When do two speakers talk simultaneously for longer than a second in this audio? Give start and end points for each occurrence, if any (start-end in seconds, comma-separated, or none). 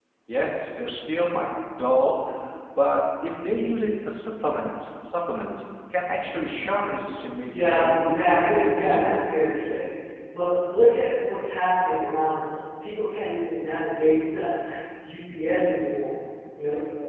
7.6-9.4